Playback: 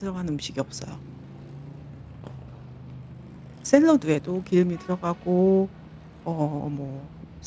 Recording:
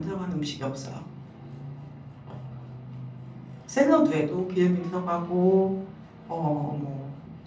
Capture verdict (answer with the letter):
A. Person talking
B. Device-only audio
B